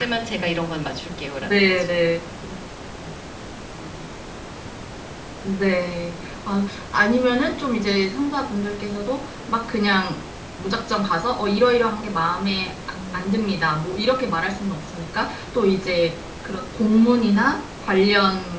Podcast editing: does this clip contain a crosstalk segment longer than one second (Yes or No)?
No